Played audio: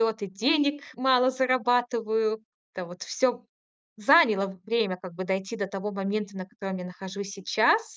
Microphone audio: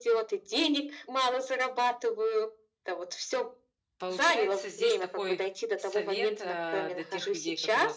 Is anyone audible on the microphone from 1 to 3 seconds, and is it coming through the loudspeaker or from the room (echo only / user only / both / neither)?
echo only